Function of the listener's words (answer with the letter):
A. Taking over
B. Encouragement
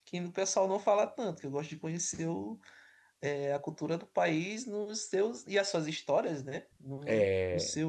B